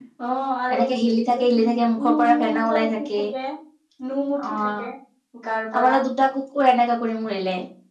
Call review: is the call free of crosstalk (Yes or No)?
No